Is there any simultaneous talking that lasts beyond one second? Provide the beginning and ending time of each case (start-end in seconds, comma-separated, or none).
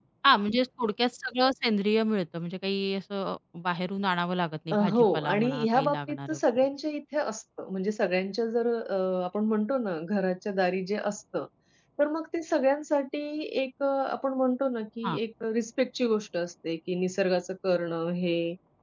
4.7-6.7